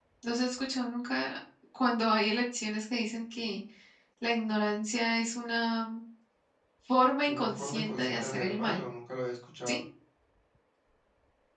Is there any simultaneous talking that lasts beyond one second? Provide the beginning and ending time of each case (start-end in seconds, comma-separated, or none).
7.3-8.8